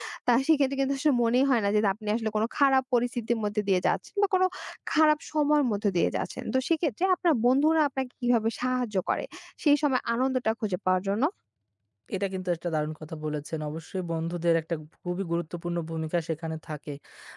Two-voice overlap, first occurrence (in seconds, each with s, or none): none